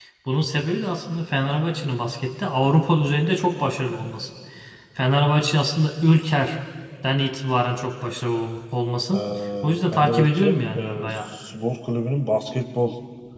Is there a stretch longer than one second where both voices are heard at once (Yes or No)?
Yes